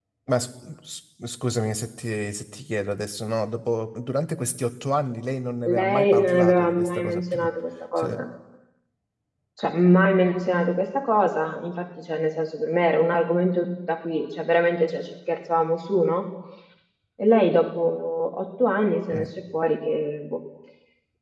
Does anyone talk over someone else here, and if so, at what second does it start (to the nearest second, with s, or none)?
6 s